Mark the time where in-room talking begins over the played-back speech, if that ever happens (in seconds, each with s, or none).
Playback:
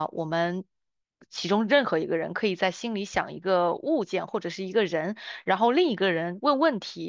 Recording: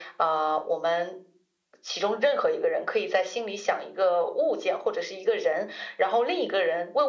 none